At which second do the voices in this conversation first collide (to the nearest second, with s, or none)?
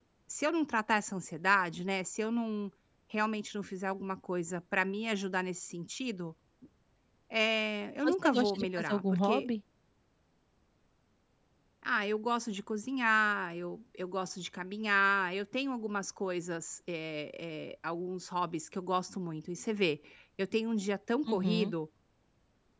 8 s